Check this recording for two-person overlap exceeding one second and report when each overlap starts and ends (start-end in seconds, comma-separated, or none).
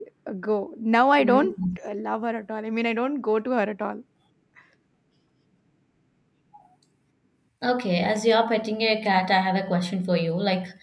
none